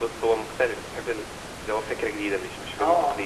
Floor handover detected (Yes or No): Yes